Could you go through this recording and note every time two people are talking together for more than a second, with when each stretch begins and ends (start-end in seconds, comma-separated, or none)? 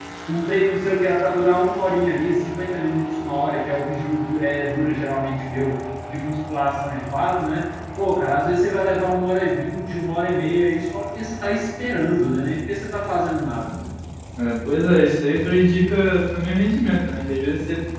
none